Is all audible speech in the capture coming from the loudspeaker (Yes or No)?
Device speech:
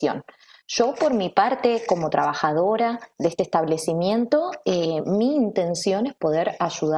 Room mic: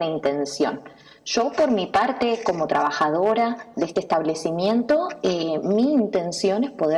Yes